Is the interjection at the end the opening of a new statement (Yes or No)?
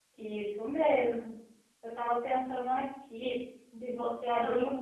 No